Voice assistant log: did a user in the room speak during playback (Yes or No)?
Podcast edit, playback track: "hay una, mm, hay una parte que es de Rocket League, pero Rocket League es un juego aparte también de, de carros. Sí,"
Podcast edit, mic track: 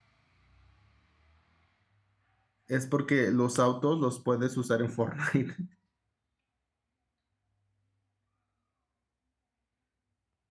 Yes